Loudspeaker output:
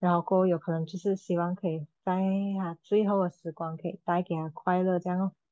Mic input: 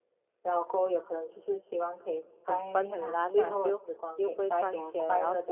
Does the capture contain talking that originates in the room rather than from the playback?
Yes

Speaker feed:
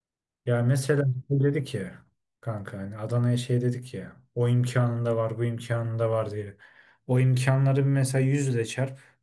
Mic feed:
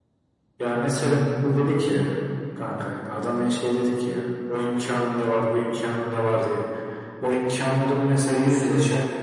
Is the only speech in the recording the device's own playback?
No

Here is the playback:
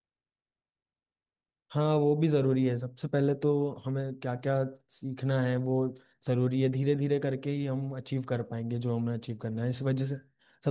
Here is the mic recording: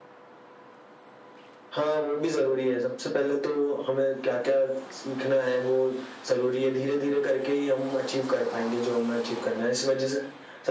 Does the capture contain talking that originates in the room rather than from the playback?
No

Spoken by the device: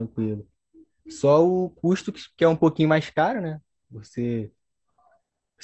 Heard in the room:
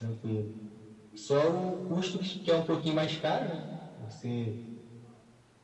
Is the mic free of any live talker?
Yes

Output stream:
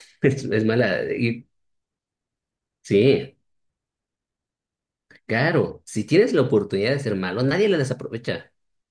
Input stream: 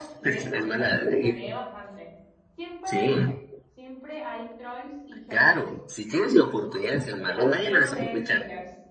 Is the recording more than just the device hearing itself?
Yes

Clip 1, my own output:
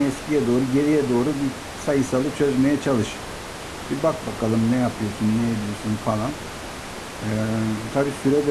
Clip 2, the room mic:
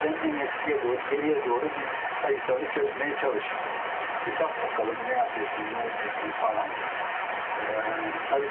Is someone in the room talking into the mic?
No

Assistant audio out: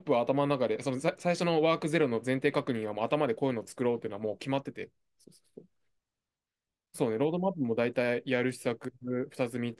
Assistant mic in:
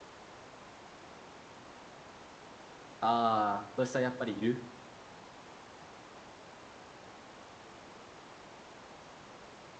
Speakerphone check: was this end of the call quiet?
No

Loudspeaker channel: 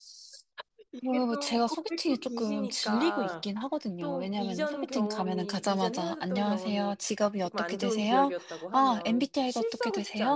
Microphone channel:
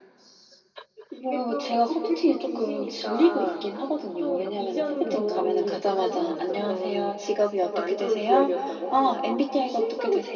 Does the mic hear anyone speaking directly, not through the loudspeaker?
Yes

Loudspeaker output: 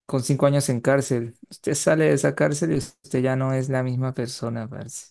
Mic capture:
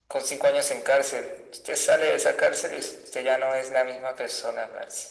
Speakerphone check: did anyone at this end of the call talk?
No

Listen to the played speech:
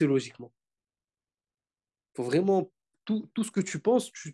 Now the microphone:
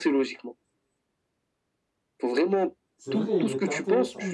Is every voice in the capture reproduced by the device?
No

